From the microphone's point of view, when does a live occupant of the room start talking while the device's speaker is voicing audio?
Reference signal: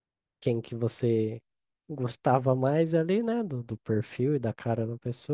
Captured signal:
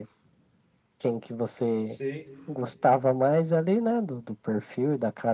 1.8 s

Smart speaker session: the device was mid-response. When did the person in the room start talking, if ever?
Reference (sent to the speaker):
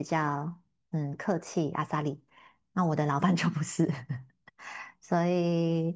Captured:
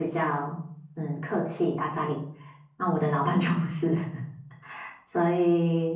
none

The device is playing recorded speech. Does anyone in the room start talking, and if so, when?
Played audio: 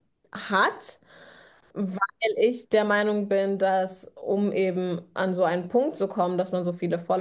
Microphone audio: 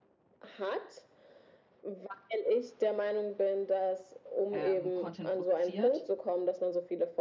4.5 s

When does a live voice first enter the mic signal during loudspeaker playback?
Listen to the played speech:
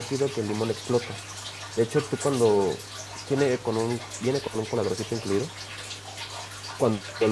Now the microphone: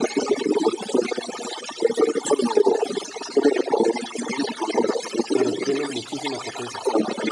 5.3 s

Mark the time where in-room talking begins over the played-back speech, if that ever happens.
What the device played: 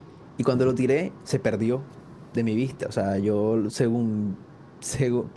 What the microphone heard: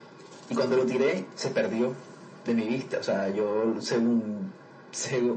none

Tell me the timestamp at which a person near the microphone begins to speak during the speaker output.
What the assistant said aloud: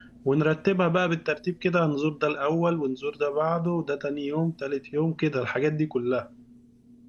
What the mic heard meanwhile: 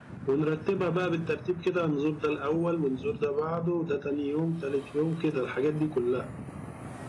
none

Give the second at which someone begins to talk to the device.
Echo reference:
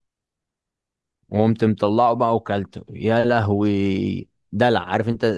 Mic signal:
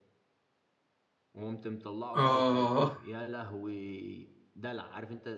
2.1 s

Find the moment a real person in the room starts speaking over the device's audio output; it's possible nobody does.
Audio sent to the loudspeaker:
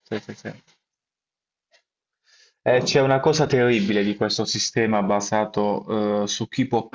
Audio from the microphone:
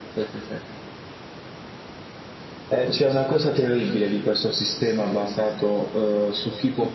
none

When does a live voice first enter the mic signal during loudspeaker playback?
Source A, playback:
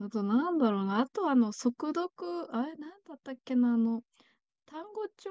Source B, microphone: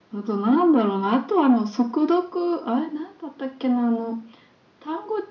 none

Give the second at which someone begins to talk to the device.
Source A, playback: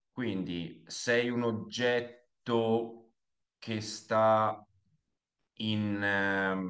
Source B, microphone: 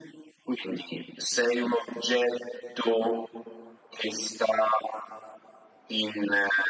none

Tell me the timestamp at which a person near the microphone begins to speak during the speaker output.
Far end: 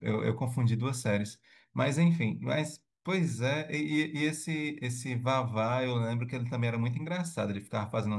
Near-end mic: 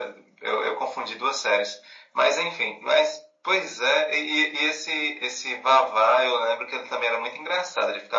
none

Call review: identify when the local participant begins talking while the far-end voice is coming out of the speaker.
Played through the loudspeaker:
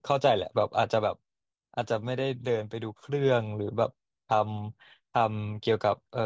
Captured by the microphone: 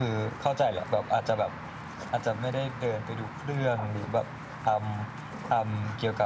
none

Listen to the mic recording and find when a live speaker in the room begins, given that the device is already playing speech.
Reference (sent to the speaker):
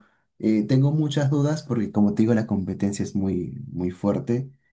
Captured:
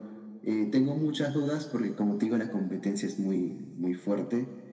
none

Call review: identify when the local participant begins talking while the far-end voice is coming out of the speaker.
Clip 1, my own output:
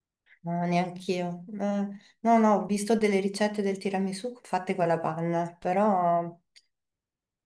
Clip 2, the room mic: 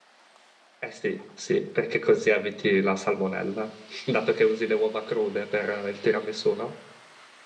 0.8 s

